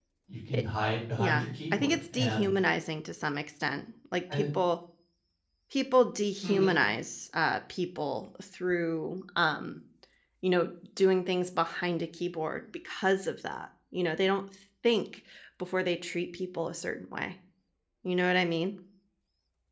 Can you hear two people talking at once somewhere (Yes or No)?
Yes